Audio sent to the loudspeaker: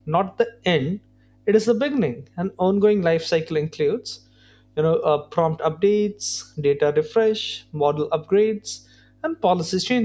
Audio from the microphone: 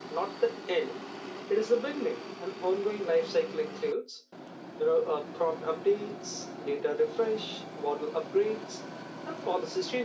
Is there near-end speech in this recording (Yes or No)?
No